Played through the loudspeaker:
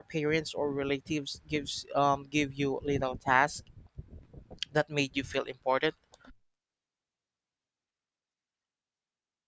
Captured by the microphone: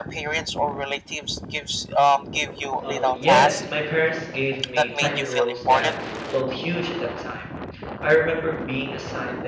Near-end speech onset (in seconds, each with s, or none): 2.8 s